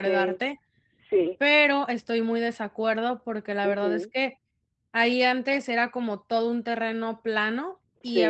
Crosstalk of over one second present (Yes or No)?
No